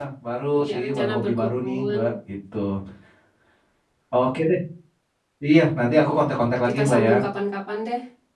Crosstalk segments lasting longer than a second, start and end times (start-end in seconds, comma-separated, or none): 0.6-2.0